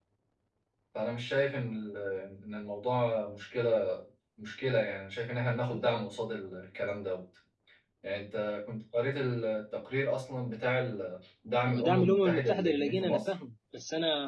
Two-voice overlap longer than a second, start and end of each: 11.7-13.3

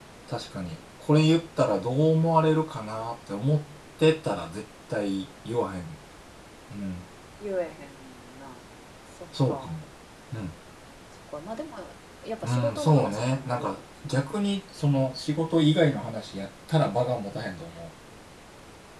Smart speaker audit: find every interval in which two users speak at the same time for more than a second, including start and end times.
12.4-13.7

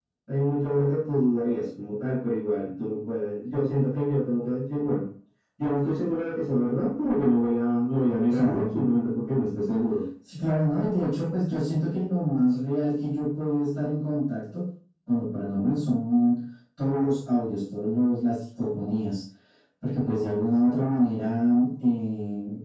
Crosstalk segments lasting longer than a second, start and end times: none

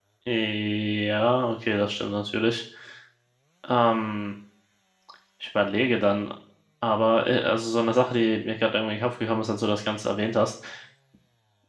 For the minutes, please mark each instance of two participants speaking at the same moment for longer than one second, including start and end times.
none

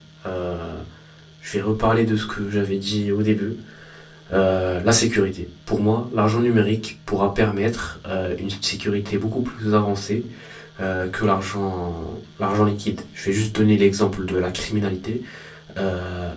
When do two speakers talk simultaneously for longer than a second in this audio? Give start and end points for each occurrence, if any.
none

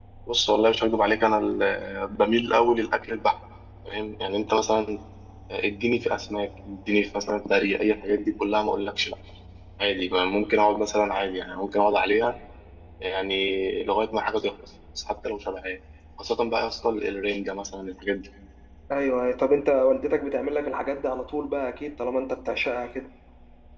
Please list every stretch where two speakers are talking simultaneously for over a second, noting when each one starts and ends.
none

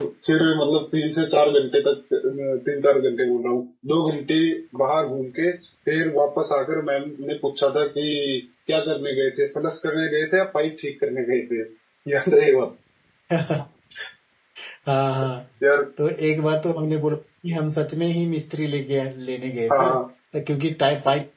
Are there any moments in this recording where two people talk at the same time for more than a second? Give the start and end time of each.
none

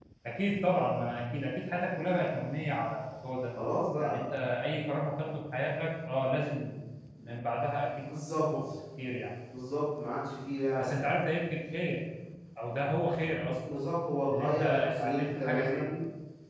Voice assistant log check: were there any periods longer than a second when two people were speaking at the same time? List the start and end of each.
14.3-15.9

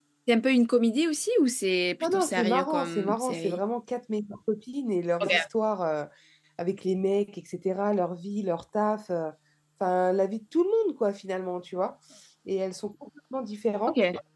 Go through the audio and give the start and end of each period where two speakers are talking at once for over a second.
2.0-3.6

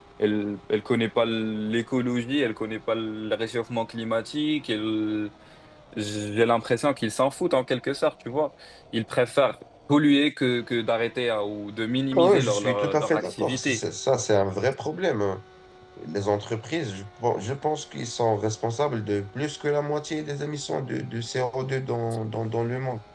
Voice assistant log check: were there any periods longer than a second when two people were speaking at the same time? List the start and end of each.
12.1-13.8

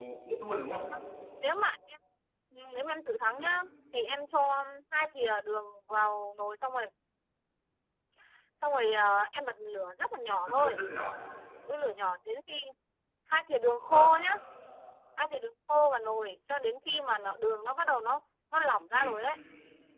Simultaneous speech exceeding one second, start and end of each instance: none

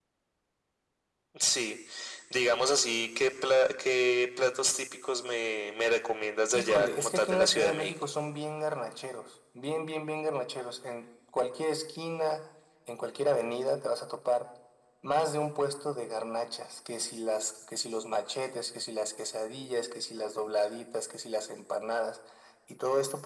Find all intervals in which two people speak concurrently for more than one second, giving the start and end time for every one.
6.5-7.9

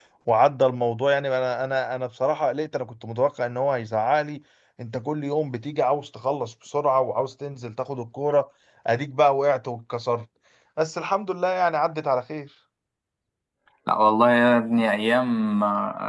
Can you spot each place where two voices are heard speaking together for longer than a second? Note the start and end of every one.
none

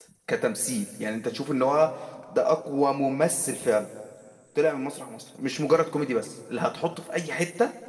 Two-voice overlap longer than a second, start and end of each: none

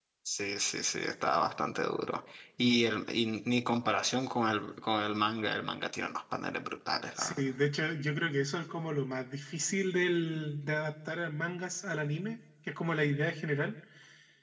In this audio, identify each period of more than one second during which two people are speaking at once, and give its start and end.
none

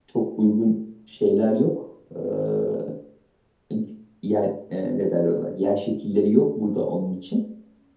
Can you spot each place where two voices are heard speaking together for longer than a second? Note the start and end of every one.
none

